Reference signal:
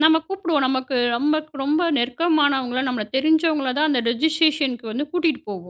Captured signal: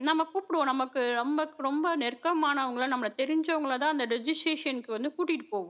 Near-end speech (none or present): none